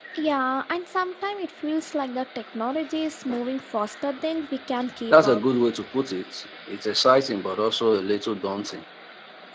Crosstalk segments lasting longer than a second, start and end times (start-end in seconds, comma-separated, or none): none